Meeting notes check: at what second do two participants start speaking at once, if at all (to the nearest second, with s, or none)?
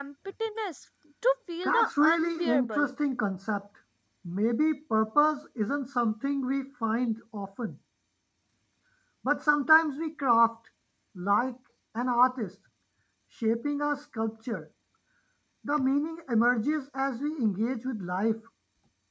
2 s